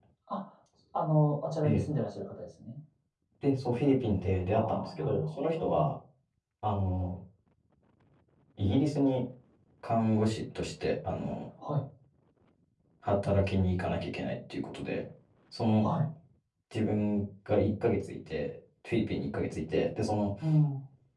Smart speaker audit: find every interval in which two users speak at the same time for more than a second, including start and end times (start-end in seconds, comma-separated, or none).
4.5-5.9